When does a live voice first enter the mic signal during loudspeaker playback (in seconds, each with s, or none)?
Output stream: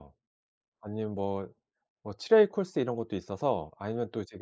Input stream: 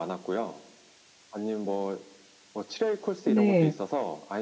3.2 s